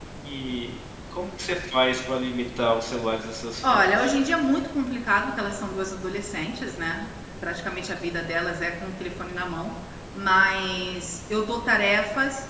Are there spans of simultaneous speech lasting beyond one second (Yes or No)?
No